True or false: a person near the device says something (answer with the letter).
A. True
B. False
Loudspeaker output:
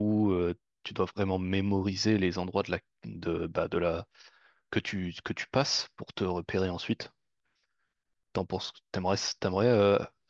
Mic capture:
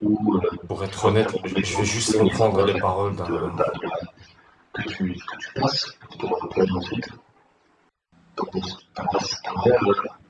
A